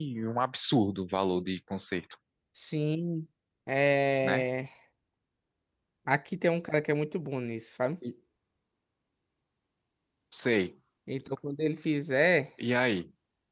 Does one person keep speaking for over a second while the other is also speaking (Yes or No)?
No